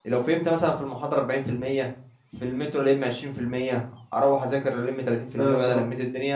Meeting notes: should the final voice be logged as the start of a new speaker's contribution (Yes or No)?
No